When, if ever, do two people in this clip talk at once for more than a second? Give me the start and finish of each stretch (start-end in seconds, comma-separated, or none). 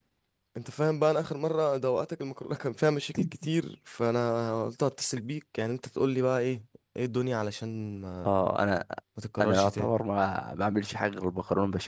none